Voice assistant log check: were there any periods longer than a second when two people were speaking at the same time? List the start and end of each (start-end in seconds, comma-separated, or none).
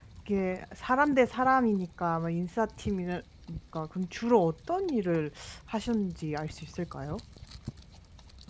none